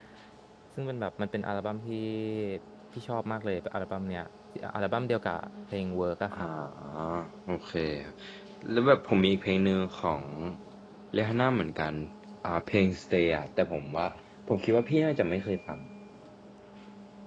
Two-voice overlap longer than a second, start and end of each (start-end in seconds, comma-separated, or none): none